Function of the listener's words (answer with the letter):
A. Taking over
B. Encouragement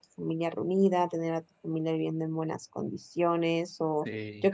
B